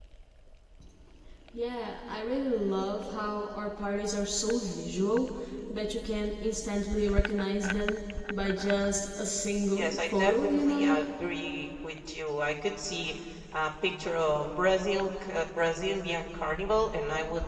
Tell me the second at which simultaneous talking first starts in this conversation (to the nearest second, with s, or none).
10 s